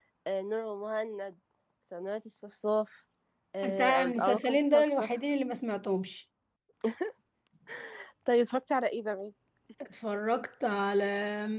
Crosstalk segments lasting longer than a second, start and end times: 3.6-5.1

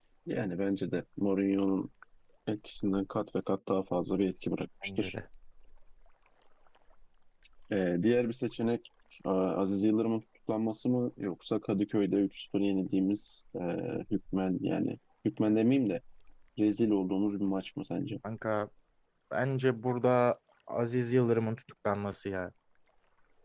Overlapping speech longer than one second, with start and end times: none

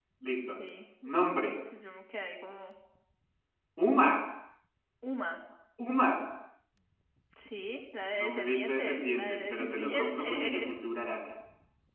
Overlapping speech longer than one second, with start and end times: 8.2-10.7

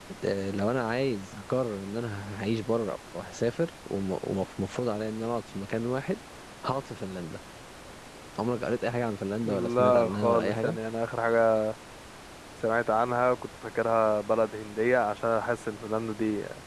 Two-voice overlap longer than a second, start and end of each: 9.4-10.8

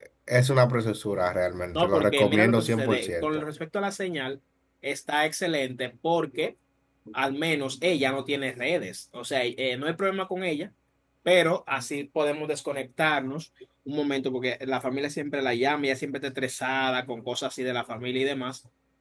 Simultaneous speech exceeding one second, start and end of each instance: 1.8-3.4

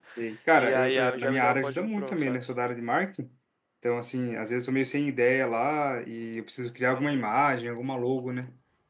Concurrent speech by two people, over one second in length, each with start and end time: 0.6-2.4

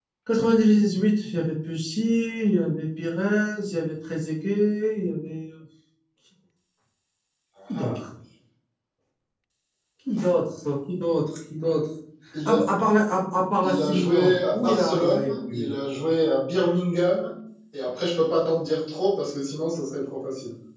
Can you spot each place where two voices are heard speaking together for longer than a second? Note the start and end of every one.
13.6-15.7

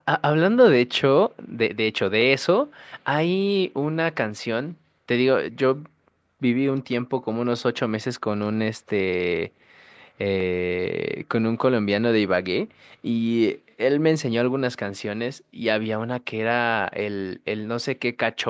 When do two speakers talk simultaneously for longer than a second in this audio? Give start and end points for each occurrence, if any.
none

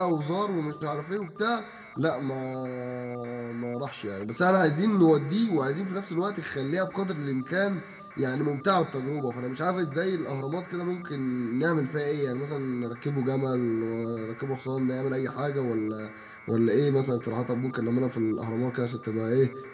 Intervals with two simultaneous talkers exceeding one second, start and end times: none

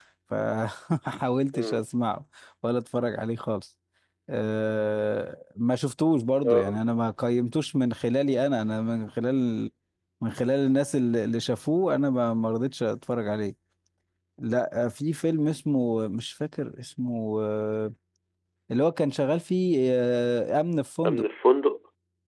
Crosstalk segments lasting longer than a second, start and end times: none

